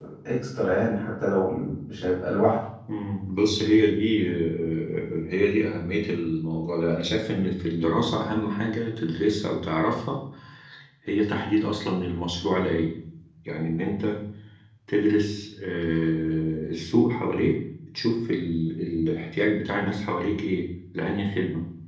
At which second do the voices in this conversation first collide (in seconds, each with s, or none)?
none